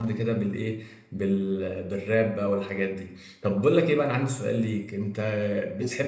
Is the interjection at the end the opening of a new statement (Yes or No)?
No